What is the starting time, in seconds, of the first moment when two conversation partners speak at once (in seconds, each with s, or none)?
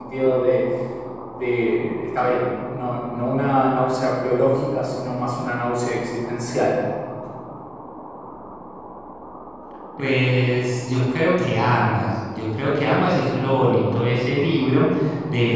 none